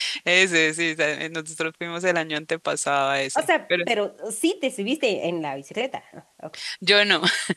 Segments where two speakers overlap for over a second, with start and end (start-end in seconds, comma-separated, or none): none